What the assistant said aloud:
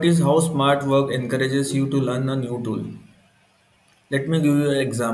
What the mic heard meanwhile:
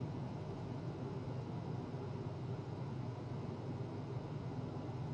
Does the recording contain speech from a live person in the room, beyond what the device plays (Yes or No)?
No